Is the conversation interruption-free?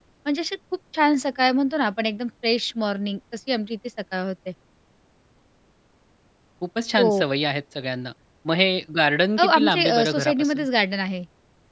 No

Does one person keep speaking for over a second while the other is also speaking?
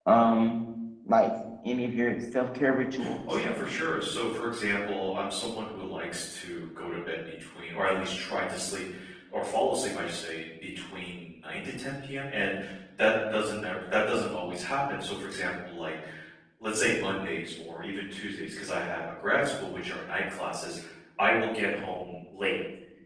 No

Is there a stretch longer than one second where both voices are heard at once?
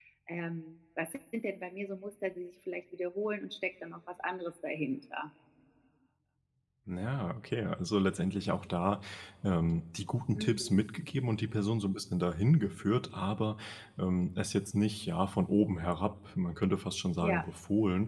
No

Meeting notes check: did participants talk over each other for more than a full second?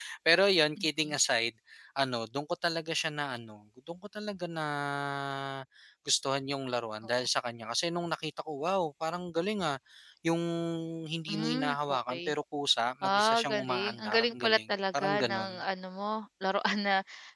Yes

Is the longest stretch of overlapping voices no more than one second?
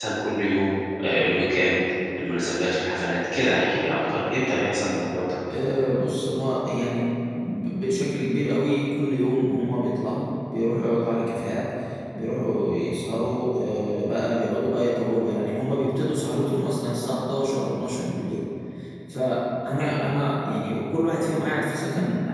Yes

